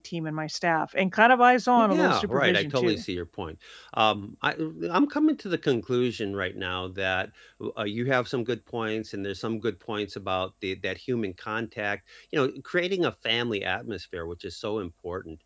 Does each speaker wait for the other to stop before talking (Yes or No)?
No